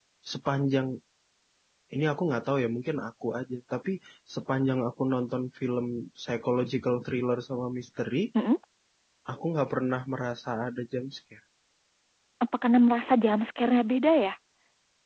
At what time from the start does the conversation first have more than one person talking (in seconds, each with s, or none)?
none